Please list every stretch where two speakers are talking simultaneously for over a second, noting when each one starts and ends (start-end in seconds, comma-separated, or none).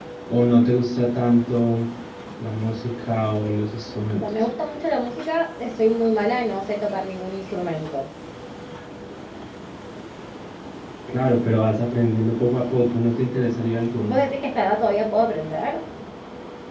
none